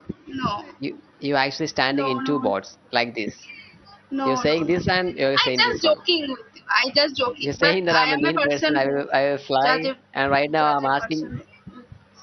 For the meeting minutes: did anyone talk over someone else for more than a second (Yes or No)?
Yes